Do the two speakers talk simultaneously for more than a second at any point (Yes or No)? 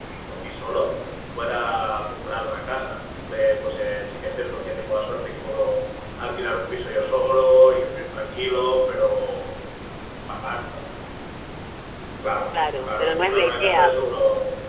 Yes